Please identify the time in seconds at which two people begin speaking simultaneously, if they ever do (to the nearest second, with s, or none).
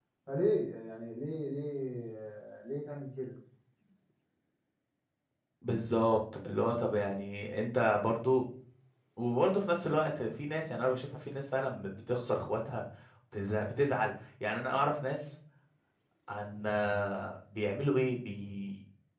none